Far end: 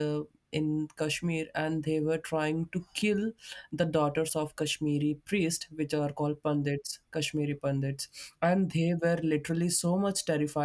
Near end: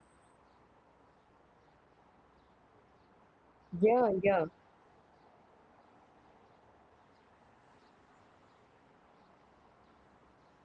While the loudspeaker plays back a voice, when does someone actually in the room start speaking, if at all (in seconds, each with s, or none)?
3.7 s